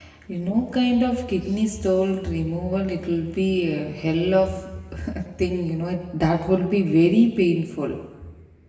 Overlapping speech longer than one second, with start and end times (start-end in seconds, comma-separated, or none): none